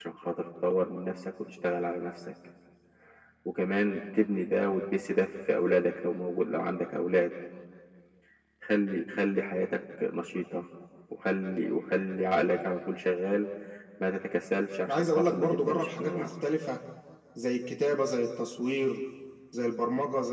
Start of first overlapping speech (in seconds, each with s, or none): 14.9 s